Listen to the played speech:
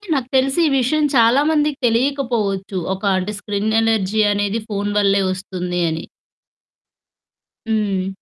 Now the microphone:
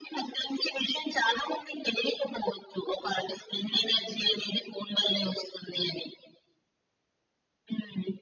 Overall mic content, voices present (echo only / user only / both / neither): echo only